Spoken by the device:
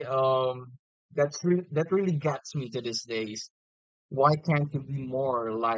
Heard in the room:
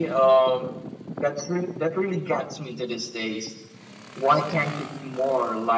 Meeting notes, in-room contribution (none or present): none